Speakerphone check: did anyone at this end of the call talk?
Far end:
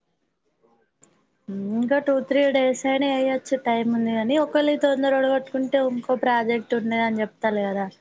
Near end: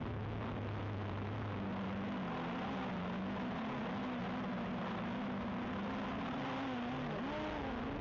No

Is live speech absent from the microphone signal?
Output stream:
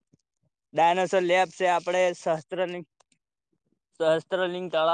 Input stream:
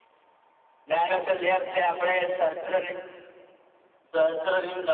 Yes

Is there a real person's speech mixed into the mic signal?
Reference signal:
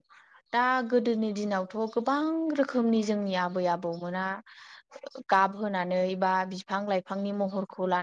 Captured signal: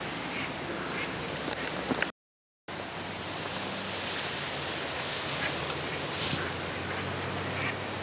No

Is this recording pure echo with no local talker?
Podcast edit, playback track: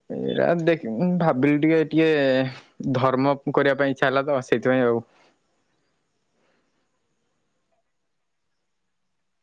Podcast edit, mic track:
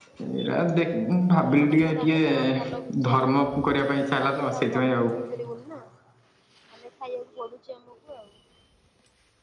No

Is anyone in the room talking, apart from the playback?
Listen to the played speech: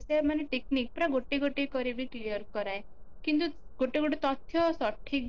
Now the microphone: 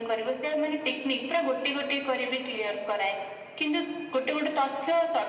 No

